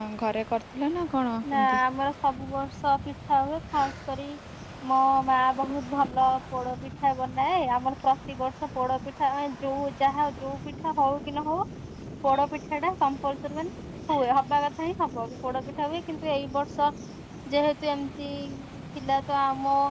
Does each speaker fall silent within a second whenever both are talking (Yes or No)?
Yes